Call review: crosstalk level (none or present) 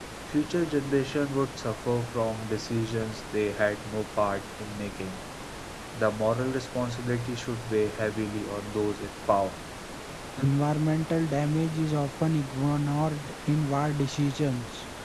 none